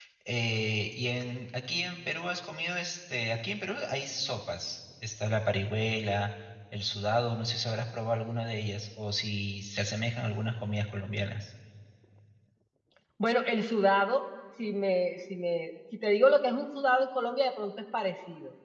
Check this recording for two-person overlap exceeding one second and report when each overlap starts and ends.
none

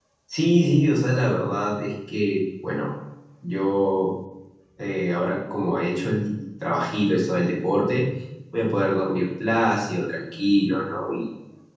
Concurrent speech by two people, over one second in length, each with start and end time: none

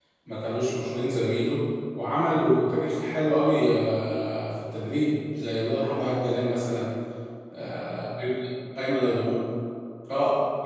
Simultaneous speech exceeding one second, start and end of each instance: none

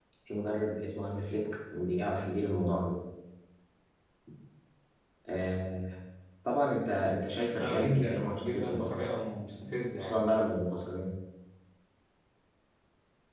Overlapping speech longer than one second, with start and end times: 7.6-9.0

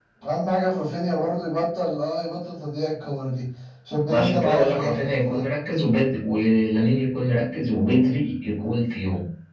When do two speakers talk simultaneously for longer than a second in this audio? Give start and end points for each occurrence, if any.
4.1-5.4

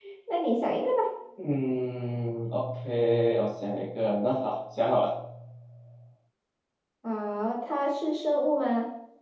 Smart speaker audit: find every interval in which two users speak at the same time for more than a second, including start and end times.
none

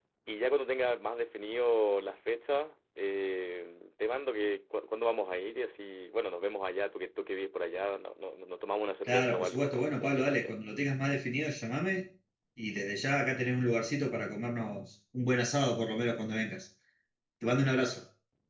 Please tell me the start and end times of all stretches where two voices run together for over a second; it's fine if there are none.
9.1-10.5

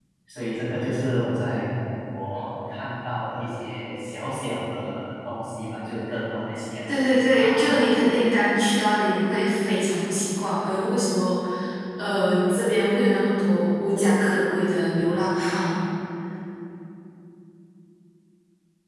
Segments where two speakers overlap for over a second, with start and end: 6.9-8.1

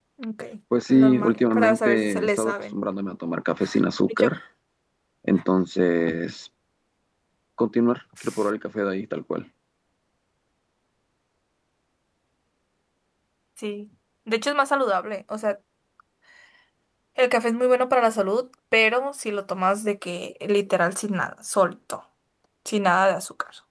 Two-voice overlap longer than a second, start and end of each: 0.9-2.8

